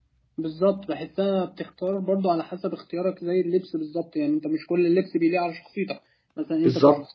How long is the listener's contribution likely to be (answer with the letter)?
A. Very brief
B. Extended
A